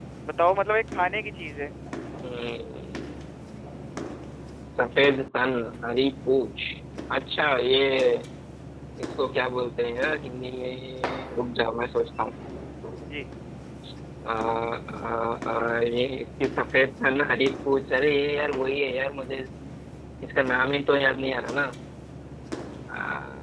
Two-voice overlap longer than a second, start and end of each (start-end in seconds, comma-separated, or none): none